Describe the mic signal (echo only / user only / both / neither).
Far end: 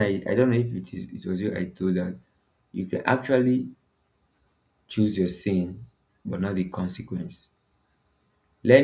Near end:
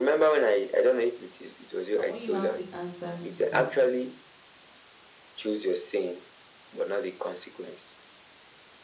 both